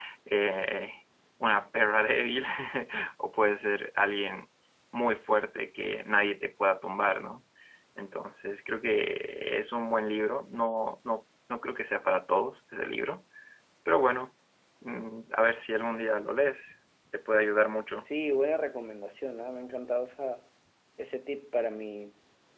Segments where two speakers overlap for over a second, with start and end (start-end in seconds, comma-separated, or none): none